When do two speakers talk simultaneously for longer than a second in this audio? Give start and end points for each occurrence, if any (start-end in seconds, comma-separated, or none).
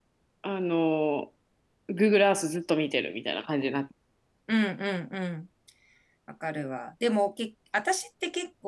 none